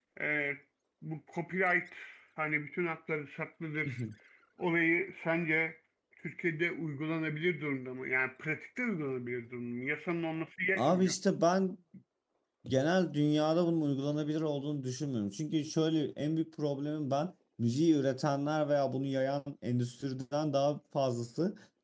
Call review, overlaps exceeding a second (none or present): none